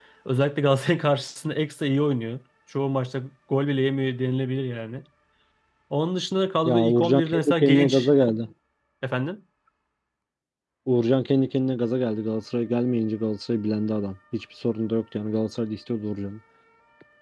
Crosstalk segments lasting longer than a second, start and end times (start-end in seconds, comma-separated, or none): 6.6-8.1